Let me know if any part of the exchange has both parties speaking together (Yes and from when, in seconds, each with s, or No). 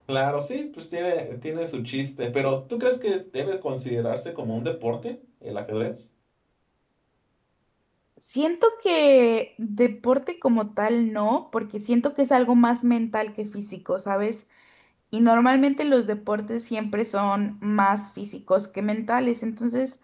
No